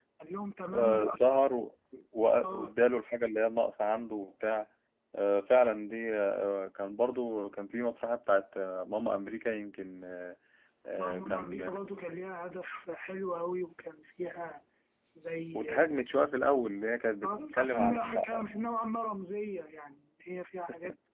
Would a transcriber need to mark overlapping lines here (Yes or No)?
Yes